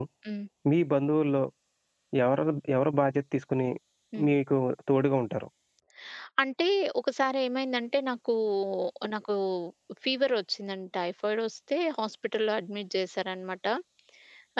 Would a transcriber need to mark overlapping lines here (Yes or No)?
No